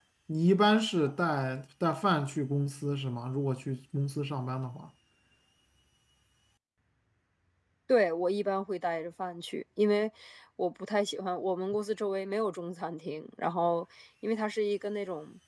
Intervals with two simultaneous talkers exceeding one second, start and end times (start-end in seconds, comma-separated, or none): none